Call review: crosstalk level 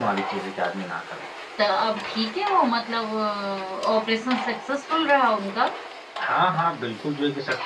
none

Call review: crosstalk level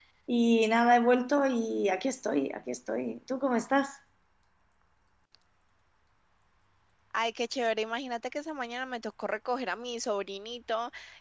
none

